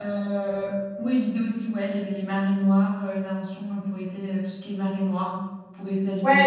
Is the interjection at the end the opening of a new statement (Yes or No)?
Yes